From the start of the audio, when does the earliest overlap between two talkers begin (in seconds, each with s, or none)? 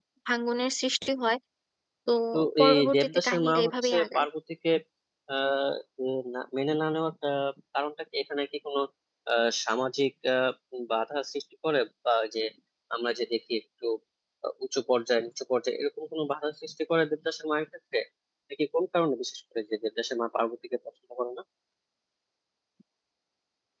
2.6 s